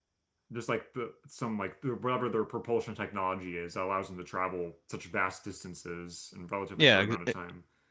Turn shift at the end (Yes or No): Yes